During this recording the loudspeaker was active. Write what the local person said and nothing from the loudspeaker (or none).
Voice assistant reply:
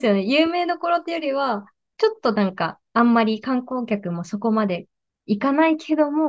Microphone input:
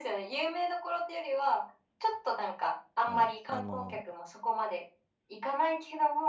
はい。あの、